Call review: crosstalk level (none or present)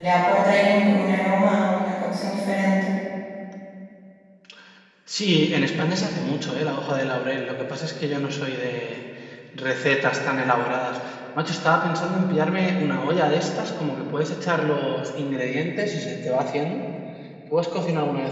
none